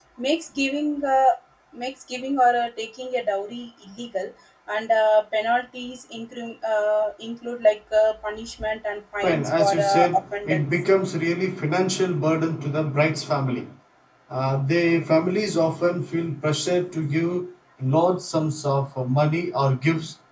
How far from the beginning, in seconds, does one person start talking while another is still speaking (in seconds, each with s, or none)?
9.2 s